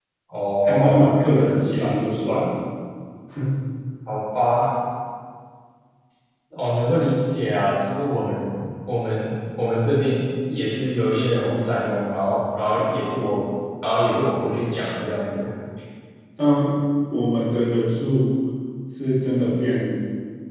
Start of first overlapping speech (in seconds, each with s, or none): 0.7 s